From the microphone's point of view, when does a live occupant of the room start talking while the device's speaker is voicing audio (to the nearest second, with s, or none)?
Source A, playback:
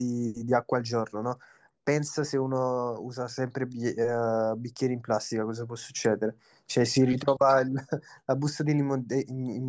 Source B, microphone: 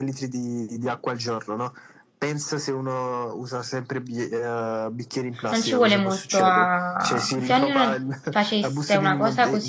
5 s